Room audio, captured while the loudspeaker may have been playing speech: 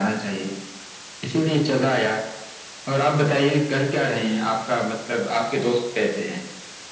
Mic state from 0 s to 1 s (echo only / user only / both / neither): echo only